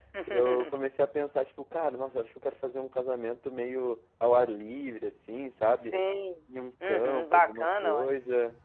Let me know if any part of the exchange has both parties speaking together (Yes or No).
Yes